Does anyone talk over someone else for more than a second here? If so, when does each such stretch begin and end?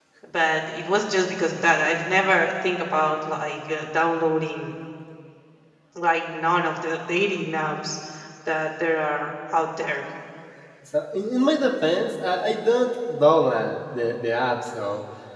none

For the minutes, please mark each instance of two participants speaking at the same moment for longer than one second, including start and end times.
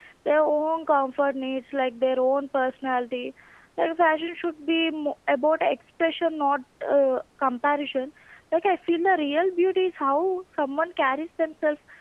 none

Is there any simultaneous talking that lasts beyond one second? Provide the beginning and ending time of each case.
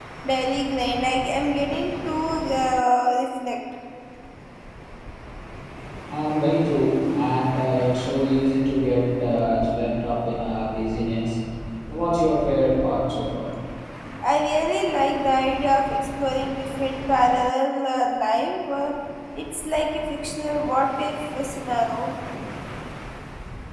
none

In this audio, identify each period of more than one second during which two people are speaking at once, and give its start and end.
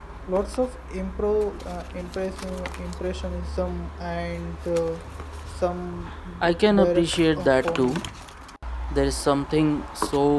6.7-8.0

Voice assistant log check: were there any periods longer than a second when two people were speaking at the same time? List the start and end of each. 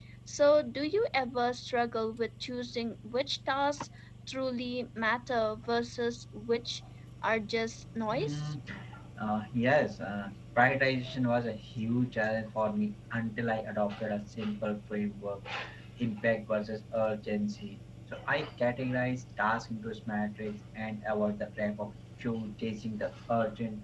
none

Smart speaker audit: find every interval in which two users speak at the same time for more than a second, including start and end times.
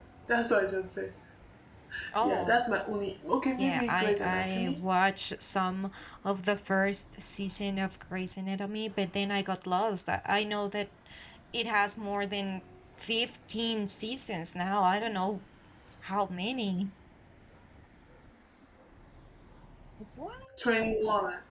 3.6-4.8

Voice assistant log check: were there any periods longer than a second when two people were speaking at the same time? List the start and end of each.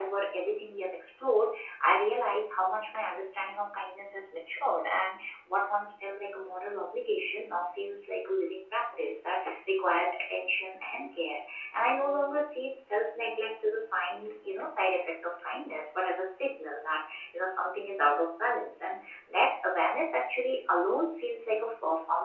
none

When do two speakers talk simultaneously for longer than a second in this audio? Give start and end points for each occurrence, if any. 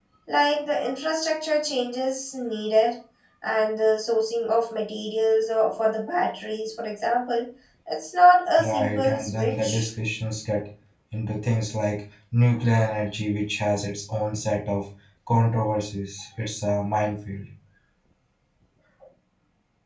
8.6-9.9

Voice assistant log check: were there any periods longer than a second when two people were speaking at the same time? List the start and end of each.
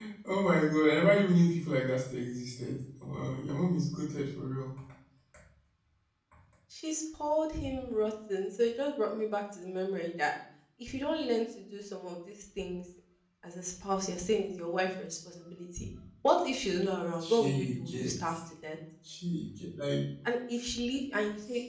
17.2-18.4

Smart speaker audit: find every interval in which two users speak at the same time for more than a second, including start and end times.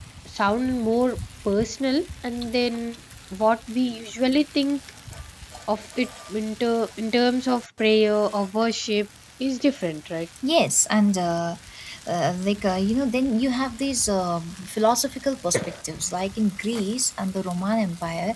none

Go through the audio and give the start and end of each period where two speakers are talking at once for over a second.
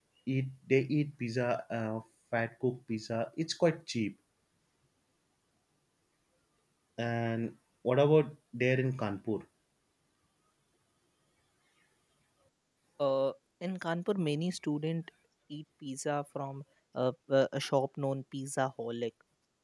none

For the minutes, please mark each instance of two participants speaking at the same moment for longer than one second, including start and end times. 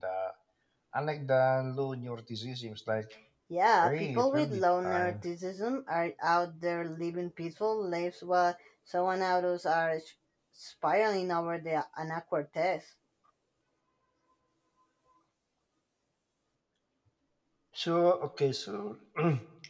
3.8-5.2

